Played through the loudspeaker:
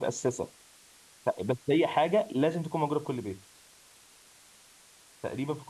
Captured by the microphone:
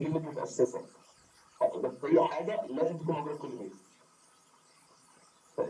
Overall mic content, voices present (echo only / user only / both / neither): echo only